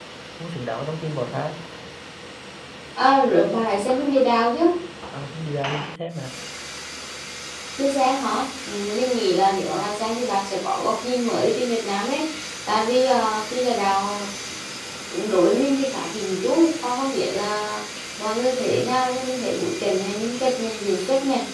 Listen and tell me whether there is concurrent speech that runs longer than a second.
No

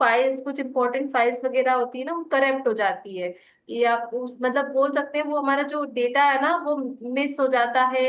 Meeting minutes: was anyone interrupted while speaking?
No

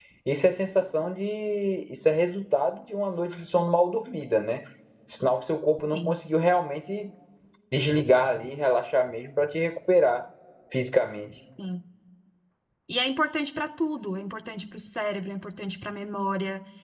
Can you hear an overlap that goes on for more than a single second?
No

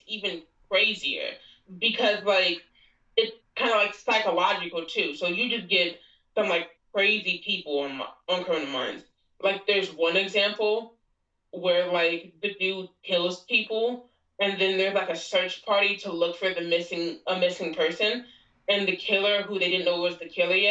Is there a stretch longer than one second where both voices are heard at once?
No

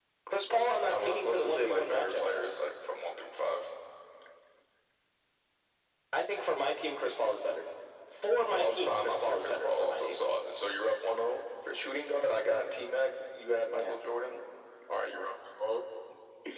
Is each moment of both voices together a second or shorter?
No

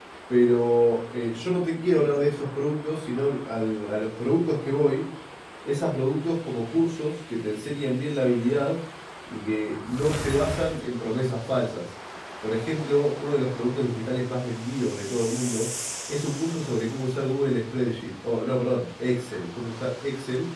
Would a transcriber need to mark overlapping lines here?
No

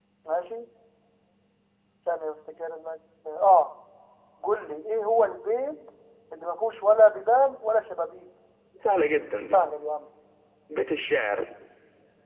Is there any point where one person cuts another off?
No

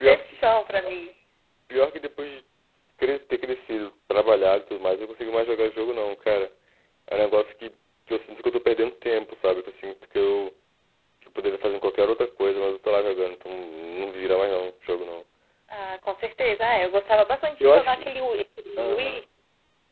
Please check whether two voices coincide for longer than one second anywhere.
No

